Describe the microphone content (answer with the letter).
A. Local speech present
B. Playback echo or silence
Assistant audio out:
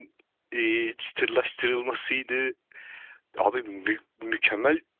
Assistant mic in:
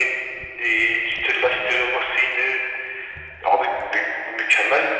B